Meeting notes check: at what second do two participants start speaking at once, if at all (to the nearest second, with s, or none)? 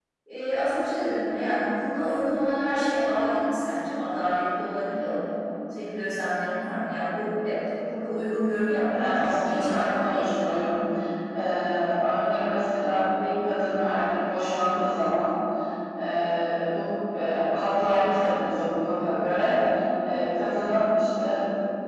9 s